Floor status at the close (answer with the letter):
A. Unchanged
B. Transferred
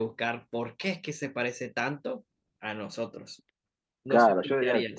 B